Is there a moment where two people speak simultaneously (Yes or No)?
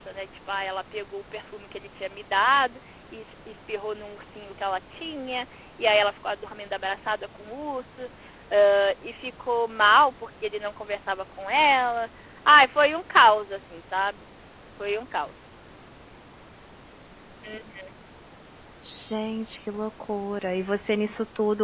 No